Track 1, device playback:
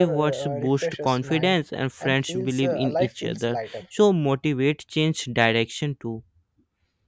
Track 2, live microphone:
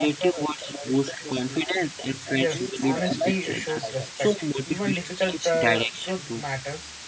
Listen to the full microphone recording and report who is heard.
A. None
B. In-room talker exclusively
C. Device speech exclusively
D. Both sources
D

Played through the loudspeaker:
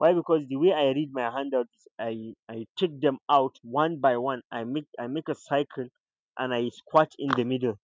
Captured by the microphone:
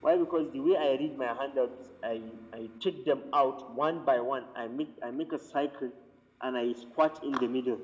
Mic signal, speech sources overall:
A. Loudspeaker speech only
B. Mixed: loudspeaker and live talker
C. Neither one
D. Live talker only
A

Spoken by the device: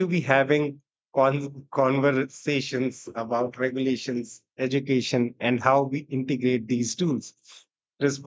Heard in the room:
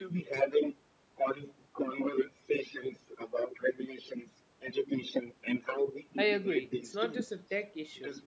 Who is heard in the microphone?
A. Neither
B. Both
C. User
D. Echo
B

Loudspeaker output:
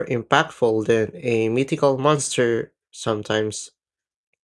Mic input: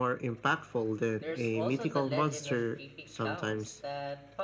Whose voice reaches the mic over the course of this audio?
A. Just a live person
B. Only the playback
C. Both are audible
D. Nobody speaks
C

